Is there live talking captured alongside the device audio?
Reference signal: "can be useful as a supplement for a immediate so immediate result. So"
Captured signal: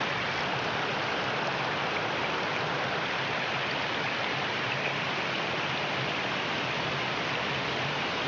No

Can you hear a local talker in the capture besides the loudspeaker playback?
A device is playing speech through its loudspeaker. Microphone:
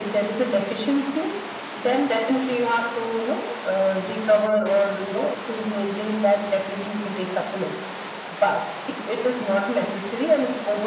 No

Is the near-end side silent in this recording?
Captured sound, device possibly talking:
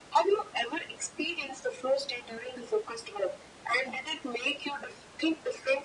Yes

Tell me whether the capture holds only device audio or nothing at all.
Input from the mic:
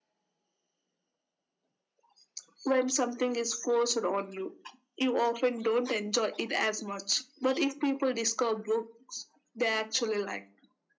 Yes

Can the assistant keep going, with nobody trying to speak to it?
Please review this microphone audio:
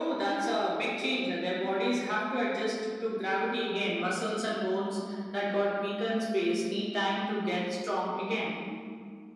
Yes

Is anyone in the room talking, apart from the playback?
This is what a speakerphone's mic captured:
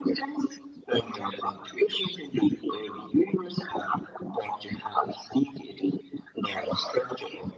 No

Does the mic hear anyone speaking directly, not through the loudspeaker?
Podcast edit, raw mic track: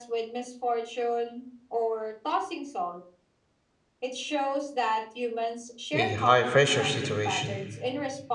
Yes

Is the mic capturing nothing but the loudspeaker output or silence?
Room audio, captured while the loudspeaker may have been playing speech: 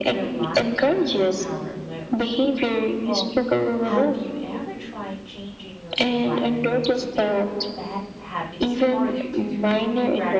No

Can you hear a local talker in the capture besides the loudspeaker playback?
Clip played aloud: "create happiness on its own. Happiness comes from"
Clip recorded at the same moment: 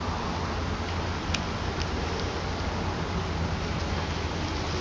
No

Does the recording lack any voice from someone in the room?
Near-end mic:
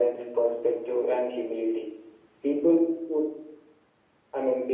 Yes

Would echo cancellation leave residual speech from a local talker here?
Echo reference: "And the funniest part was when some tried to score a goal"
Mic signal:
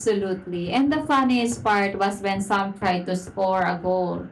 No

